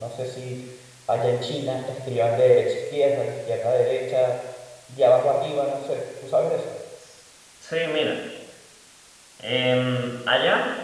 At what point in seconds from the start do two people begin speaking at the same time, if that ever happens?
none

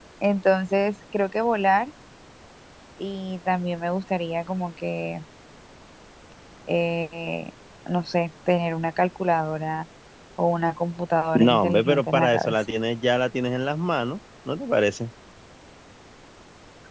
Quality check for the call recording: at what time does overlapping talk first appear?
11.3 s

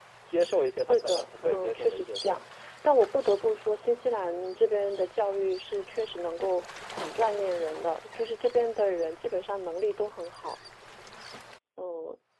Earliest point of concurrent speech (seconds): 0.9 s

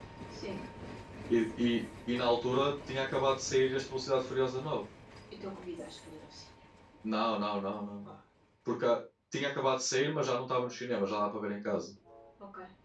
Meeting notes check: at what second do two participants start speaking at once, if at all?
none

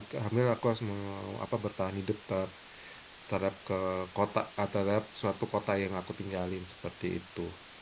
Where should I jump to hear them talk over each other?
none

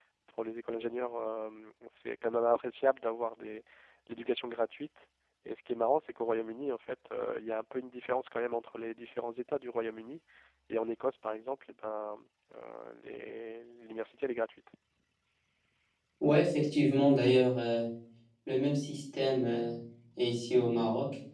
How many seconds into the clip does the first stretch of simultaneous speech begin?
none

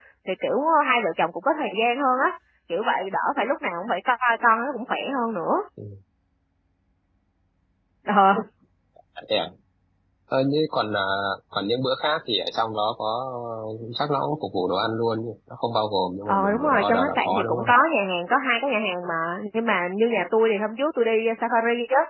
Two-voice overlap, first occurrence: 16.3 s

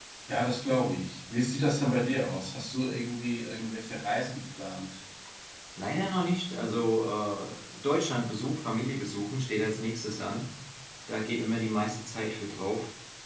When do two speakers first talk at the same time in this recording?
none

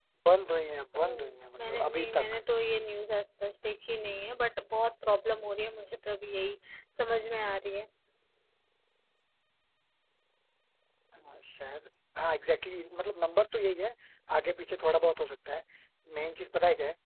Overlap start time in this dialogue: 0.9 s

